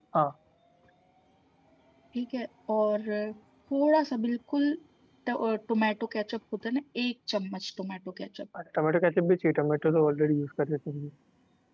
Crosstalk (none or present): none